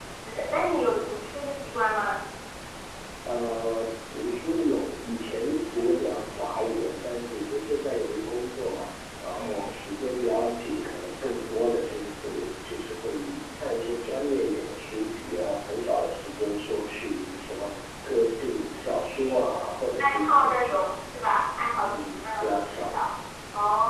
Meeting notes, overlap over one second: present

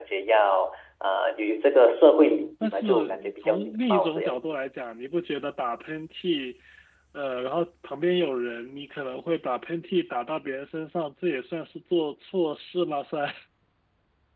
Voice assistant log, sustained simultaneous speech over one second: present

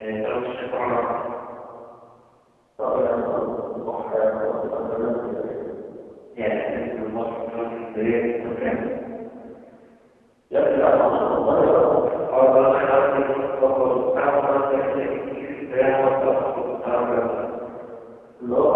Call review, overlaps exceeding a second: none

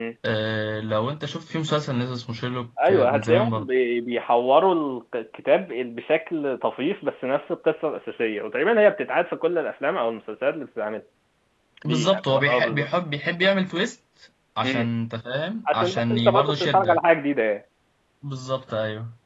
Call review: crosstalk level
present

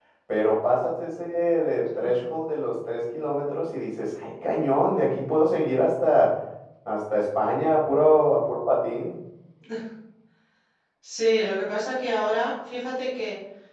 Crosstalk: none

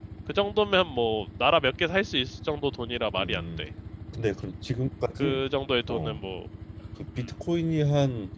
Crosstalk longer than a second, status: none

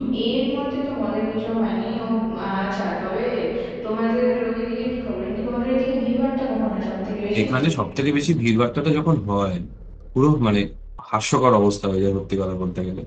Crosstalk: none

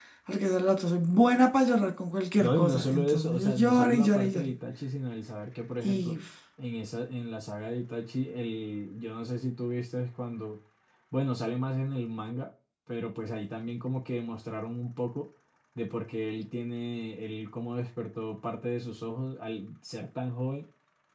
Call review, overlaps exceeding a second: present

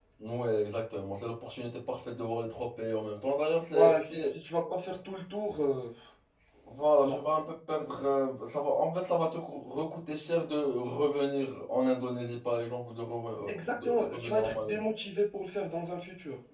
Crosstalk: present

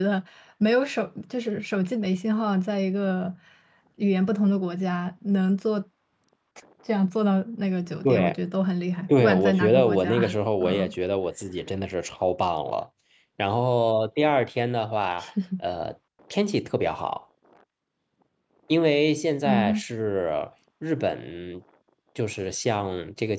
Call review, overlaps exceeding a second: present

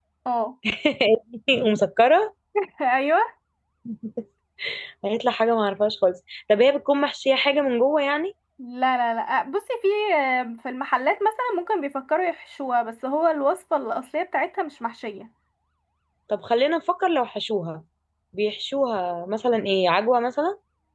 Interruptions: none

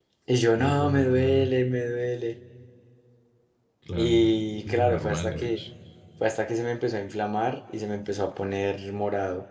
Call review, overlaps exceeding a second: present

